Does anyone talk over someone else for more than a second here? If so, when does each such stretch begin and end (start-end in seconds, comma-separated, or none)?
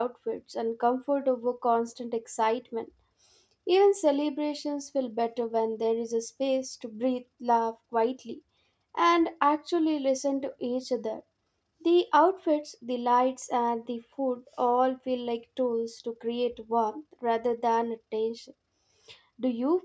none